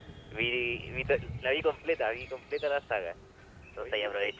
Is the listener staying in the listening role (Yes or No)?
Yes